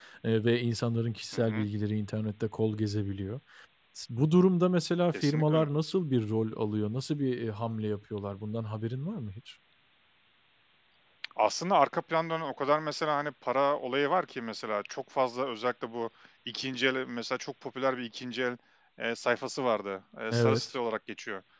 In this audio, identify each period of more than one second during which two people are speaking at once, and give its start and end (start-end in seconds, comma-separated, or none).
none